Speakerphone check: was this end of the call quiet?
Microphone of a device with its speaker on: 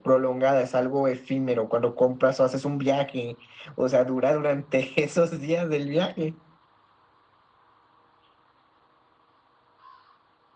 Yes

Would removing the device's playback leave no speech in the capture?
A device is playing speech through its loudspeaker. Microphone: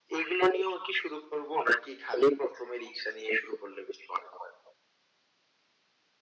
Yes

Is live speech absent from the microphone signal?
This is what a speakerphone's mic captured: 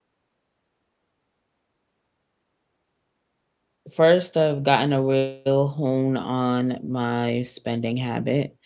No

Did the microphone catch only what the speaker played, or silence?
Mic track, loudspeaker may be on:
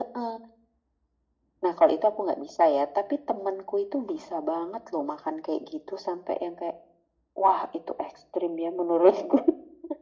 Yes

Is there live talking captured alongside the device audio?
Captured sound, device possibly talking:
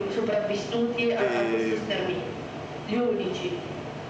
Yes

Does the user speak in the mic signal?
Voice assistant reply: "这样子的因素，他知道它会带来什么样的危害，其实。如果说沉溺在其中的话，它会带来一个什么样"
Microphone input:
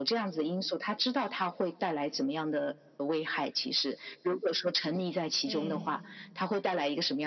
Yes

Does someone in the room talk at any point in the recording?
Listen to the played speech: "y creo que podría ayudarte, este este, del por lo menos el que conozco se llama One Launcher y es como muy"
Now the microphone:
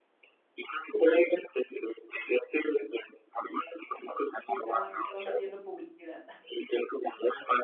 Yes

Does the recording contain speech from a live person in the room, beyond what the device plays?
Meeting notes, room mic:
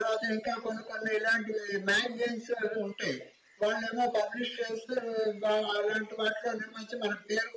No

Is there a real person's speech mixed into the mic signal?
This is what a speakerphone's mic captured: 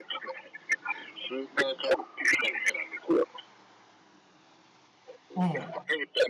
Yes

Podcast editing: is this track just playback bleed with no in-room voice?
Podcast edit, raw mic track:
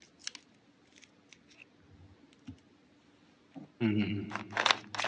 No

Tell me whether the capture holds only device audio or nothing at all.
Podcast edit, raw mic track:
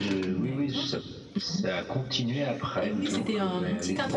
No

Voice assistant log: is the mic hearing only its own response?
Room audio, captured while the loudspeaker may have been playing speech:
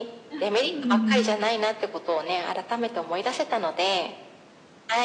No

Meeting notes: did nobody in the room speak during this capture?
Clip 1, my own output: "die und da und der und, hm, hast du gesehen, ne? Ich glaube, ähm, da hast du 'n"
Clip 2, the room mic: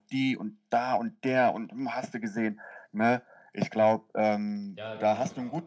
No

